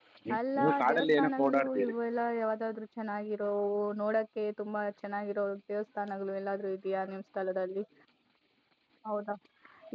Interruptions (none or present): present